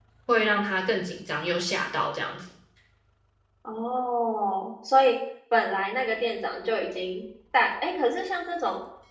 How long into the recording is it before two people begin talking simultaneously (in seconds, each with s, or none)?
none